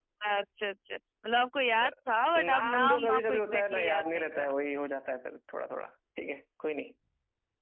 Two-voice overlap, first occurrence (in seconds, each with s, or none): 2.5 s